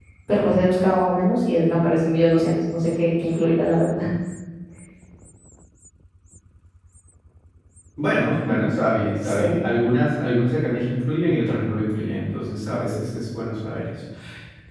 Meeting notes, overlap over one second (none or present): none